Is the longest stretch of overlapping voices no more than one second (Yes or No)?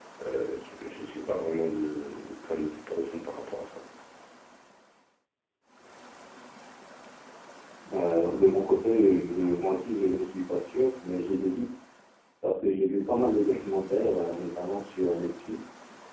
Yes